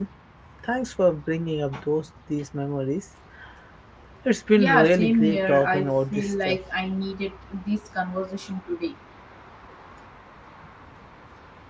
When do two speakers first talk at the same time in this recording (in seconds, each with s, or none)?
4.6 s